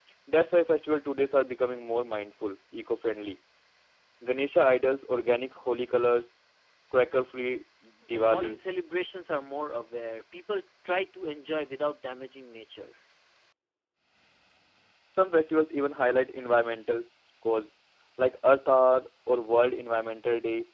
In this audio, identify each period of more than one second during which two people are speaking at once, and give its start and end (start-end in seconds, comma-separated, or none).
none